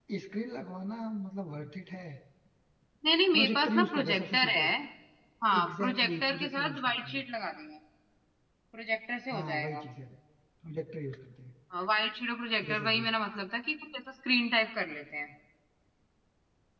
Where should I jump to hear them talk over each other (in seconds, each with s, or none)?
3.3 s